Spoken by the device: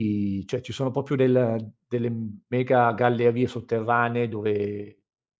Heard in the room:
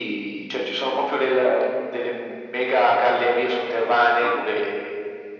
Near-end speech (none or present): present